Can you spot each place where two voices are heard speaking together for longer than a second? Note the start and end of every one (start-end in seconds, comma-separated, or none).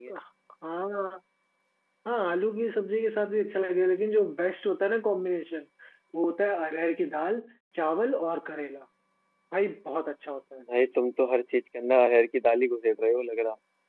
none